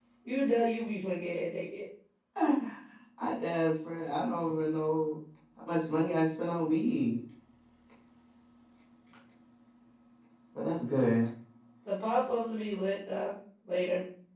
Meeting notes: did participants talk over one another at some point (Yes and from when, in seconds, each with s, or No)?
No